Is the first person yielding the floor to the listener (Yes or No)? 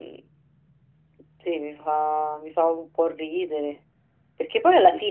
No